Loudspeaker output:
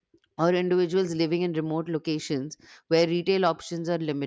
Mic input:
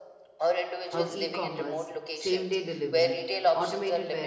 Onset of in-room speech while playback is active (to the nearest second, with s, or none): 1 s